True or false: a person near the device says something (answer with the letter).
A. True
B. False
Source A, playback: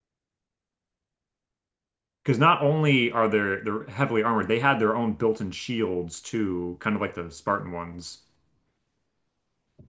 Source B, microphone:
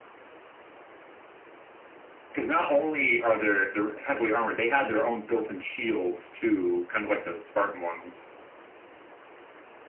B